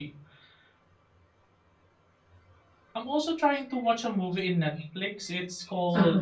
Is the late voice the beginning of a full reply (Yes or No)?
No